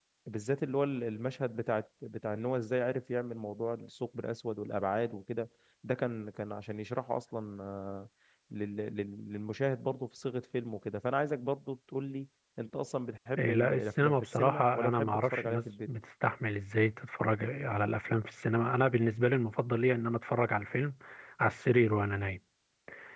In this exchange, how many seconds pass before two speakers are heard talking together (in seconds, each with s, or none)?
13.4 s